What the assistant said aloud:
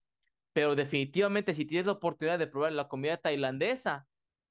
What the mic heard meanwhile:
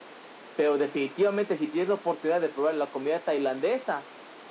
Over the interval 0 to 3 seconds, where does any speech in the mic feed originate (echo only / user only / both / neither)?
echo only